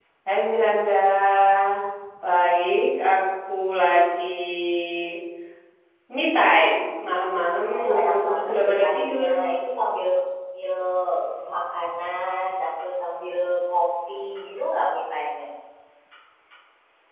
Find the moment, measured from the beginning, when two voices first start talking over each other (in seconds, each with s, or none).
7.7 s